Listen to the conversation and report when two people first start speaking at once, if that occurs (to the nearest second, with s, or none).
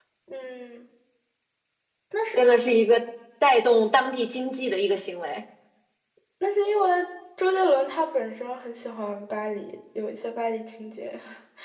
none